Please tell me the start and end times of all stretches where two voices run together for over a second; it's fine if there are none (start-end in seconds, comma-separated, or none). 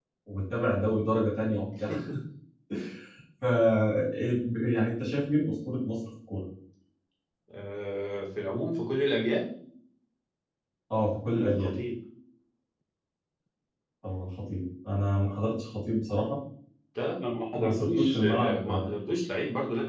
17.6-18.9